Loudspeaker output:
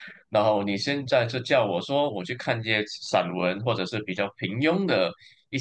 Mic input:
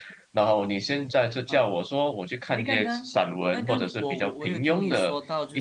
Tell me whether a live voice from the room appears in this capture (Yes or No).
Yes